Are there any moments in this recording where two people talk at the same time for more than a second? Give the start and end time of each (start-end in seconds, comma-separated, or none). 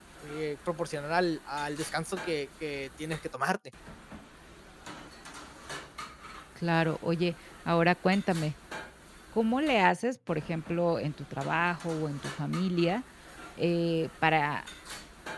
none